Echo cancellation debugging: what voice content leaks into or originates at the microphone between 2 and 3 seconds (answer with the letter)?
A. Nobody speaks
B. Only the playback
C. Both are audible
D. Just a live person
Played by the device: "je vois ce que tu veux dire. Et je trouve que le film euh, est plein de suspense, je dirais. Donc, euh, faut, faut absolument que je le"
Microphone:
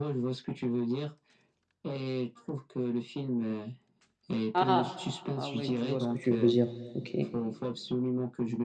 B